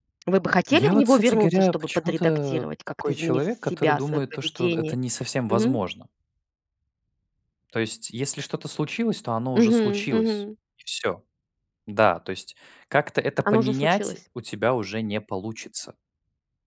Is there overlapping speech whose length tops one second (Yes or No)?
Yes